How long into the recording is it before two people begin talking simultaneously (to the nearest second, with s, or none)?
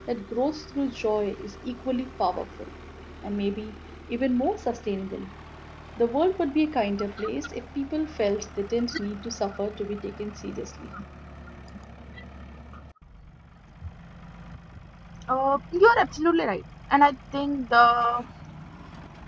none